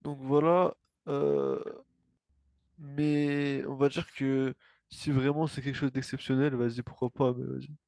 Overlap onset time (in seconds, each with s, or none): none